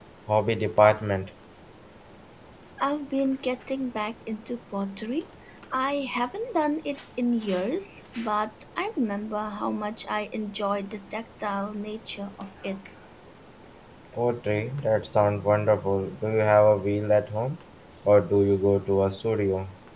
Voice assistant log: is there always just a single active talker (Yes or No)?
Yes